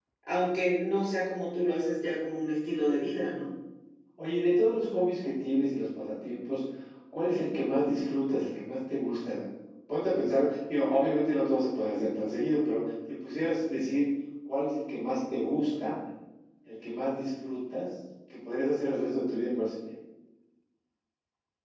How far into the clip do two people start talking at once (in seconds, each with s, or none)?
none